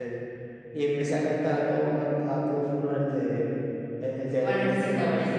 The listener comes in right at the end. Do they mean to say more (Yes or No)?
Yes